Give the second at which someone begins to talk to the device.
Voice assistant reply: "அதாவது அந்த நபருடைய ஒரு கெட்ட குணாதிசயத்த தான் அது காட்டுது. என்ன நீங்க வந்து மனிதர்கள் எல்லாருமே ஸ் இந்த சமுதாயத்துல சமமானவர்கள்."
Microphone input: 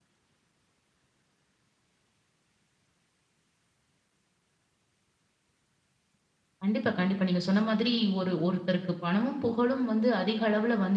7 s

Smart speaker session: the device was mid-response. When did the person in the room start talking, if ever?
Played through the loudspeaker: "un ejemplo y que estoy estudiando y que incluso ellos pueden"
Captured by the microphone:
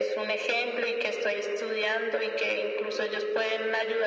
none

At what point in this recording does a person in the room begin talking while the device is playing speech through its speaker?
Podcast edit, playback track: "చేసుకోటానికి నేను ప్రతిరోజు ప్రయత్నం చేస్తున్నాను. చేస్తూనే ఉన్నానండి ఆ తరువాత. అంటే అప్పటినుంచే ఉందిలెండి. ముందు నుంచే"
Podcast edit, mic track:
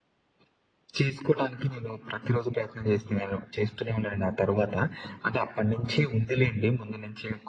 none

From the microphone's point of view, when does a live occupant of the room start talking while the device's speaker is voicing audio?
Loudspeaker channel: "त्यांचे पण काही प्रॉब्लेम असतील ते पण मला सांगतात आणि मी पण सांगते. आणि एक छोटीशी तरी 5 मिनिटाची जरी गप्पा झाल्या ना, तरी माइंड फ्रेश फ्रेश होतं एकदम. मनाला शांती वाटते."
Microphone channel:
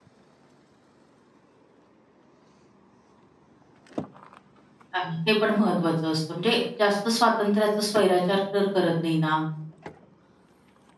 5 s

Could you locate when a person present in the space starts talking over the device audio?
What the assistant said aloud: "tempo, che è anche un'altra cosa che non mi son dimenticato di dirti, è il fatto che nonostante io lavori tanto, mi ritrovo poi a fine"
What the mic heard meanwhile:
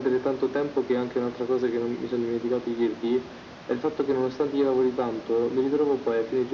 none

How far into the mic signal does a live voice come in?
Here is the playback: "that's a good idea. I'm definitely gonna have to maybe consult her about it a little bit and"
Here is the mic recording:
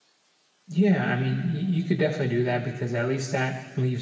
1 s

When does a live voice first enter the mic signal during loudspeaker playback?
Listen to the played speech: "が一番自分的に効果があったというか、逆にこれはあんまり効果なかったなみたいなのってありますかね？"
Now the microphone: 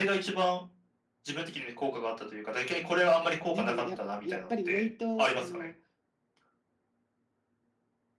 4 s

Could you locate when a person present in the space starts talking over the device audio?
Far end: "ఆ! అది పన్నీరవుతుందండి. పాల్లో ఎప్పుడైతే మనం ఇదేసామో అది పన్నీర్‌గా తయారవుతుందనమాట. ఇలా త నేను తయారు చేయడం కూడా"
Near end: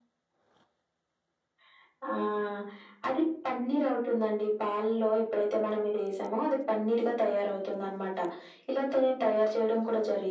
none

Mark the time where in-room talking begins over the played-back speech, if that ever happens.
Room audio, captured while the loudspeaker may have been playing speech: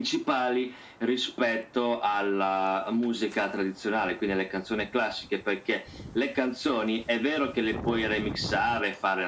none

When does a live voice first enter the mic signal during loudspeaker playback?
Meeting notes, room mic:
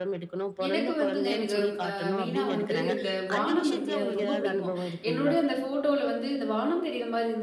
1 s

